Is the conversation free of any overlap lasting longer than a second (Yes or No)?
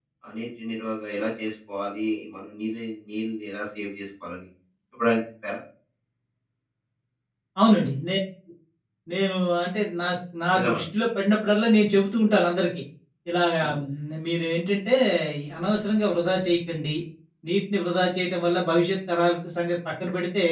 Yes